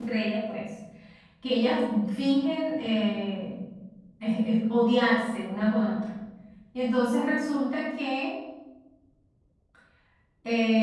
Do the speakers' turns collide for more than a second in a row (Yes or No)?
No